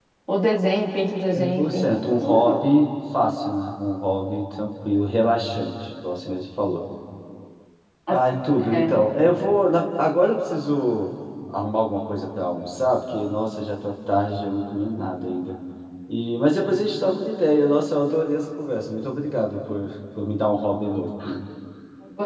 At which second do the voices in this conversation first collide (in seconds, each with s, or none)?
1.3 s